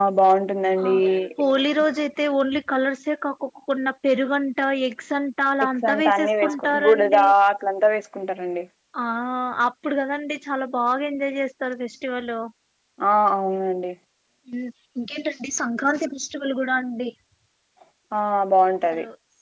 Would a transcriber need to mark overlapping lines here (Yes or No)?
Yes